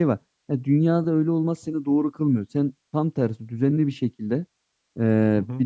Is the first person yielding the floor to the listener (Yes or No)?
No